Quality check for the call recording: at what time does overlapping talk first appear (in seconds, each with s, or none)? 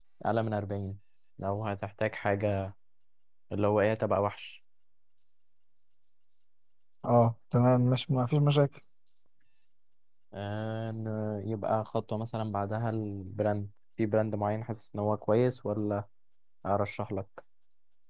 none